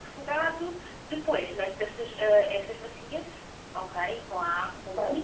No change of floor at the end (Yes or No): Yes